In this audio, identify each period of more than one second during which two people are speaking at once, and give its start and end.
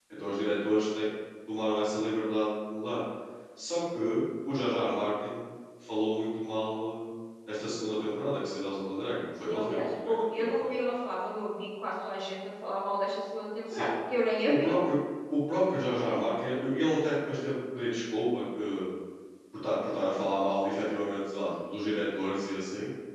9.5-10.7

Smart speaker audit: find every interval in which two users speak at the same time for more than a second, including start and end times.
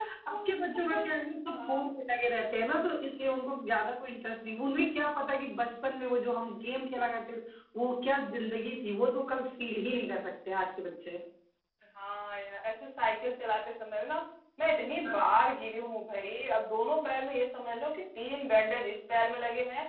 none

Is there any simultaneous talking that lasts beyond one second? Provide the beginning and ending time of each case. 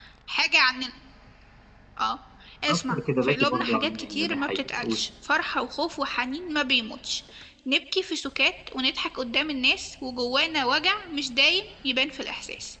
2.7-5.0

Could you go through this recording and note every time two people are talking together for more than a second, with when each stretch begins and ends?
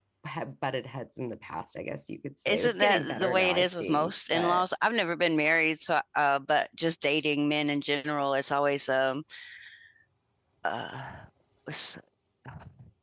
2.5-4.7

